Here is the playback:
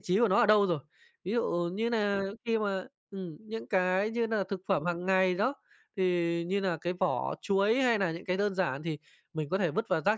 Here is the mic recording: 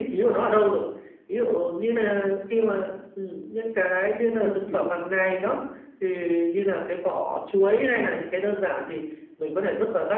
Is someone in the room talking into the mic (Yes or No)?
Yes